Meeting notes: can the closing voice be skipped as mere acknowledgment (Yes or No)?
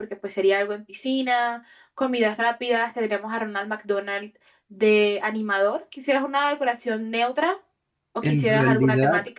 No